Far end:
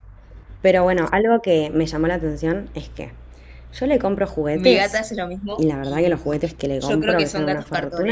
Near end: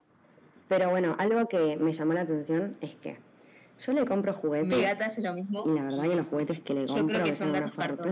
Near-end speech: none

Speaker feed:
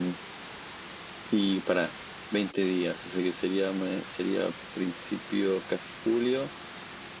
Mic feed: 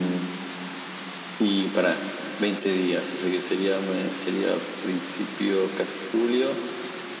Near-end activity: none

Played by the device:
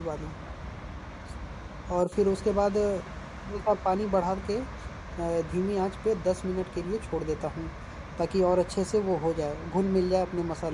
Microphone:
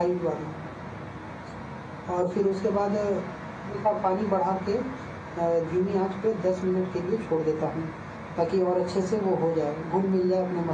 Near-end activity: none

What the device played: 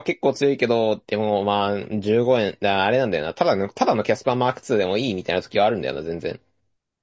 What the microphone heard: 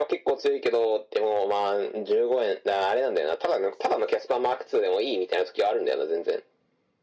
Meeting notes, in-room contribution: none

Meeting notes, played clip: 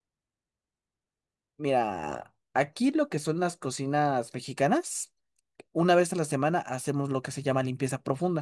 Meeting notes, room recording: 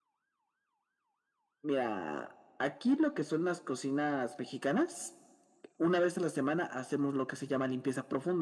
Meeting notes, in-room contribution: none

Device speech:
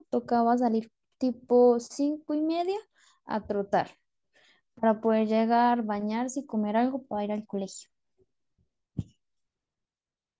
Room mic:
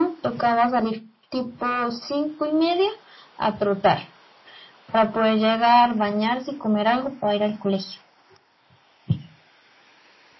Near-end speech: none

